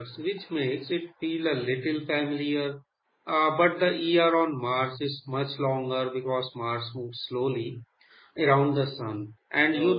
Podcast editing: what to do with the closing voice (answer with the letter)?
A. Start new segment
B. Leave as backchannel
B